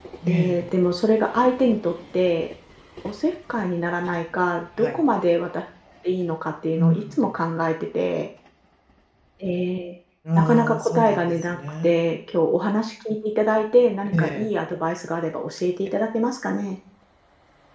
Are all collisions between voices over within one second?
No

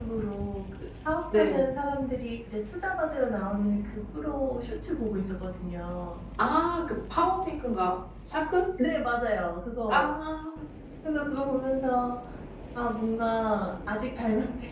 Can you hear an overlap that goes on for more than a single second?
No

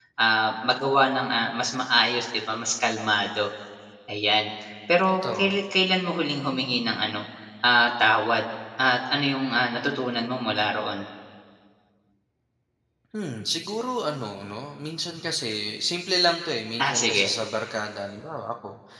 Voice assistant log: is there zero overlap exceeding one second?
Yes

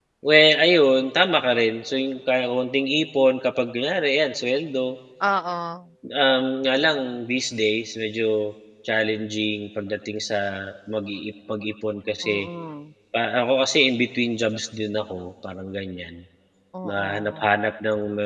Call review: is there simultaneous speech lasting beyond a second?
No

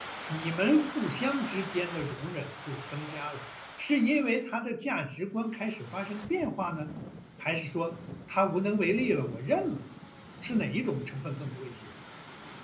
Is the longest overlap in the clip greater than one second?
No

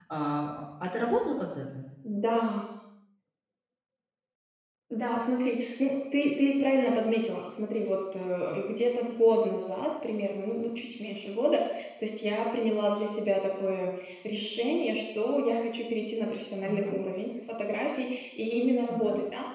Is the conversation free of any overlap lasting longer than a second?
Yes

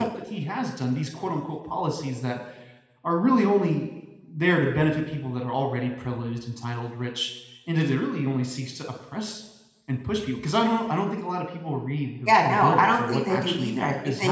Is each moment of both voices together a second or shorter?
No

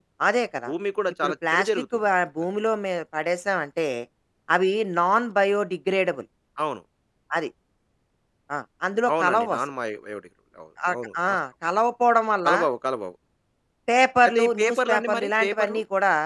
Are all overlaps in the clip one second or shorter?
No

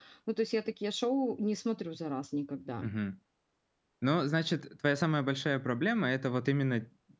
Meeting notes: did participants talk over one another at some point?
No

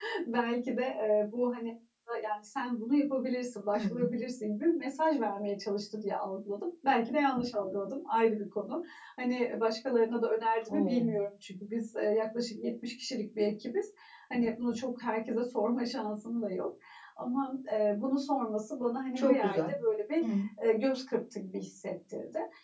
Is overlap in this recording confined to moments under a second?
Yes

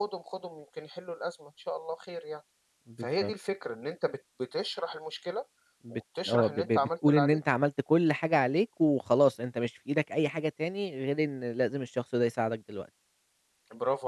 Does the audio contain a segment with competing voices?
Yes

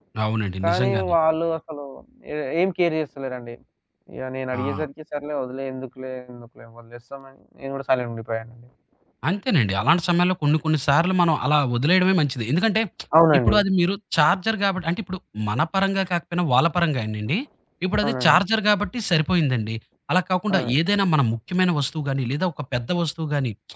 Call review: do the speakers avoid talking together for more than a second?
Yes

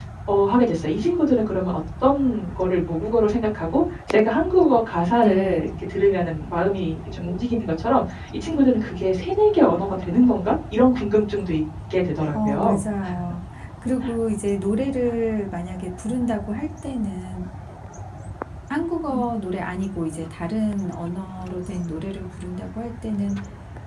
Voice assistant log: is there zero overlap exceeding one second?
Yes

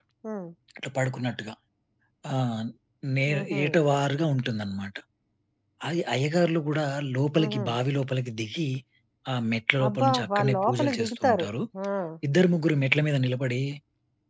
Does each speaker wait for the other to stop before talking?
No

